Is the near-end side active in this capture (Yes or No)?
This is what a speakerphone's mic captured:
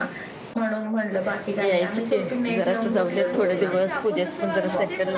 Yes